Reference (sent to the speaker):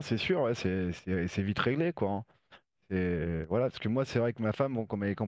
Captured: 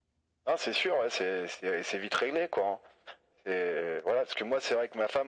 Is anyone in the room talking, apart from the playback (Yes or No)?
No